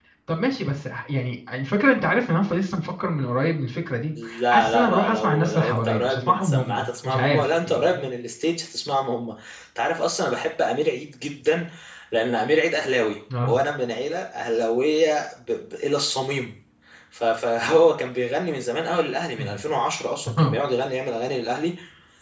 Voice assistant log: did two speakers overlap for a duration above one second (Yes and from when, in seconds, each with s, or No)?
Yes, from 4.2 s